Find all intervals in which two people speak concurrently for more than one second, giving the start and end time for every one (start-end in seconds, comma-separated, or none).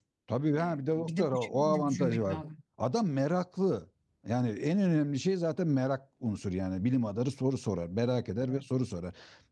0.6-2.4